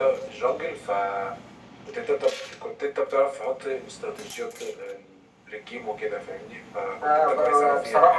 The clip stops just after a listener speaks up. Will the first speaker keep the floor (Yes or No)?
No